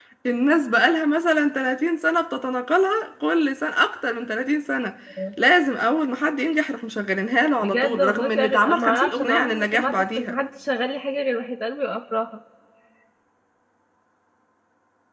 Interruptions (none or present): present